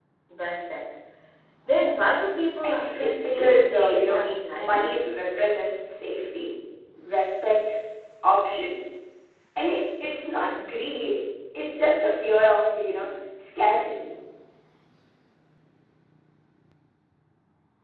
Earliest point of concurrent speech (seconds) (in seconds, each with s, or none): 2.6 s